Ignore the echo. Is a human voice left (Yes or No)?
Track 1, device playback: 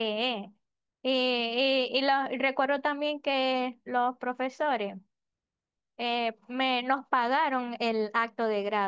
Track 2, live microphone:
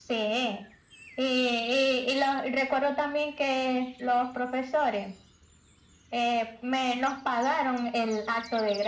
No